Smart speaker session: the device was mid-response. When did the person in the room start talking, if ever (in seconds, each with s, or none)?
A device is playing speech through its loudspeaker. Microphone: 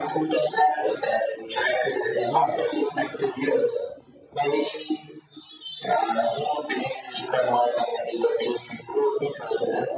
2.2 s